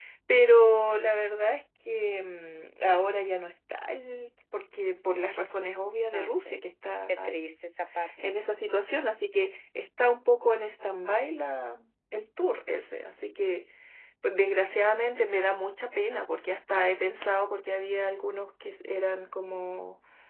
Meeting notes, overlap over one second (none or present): none